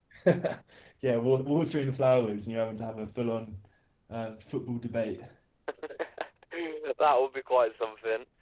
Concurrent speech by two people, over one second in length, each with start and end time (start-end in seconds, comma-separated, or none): none